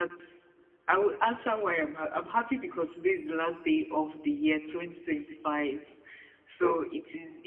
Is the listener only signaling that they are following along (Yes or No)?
Yes